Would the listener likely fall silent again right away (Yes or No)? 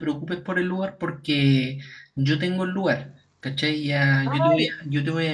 Yes